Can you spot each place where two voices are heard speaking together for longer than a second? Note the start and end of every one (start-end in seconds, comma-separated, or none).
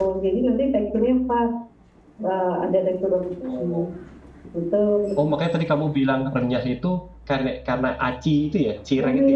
none